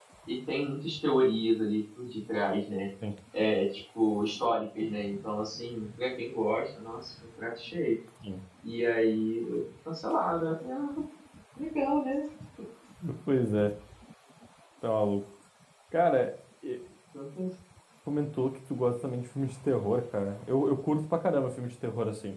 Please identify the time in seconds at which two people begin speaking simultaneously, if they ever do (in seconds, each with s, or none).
none